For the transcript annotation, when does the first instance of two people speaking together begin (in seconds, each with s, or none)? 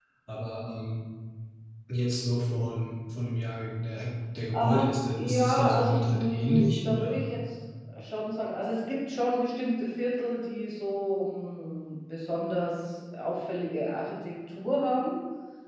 4.5 s